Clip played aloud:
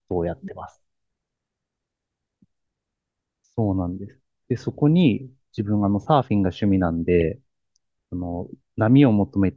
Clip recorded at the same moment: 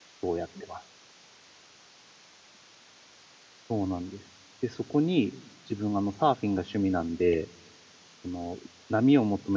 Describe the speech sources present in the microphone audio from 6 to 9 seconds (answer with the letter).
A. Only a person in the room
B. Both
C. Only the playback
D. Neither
C